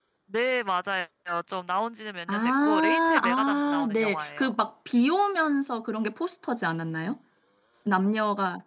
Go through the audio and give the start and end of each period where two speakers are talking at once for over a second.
2.3-4.5

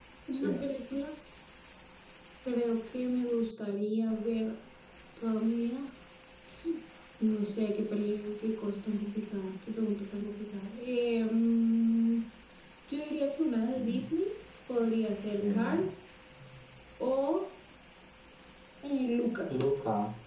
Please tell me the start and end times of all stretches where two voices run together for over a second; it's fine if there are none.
none

